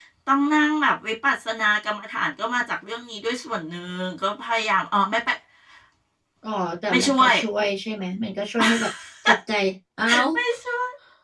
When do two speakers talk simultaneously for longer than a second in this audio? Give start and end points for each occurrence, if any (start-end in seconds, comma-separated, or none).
none